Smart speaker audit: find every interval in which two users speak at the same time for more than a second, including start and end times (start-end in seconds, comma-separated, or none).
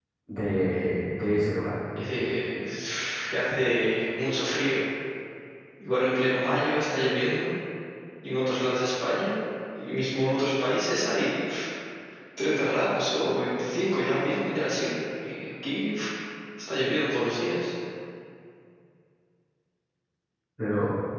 none